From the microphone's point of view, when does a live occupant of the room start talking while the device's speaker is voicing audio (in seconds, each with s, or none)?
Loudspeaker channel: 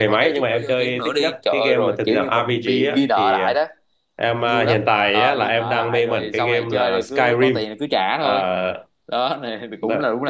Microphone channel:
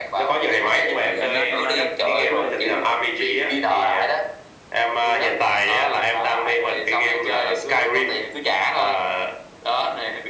0.9 s